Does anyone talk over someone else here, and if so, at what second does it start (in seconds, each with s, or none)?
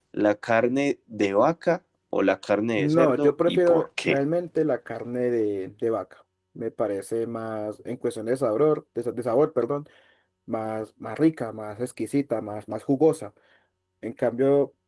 2.8 s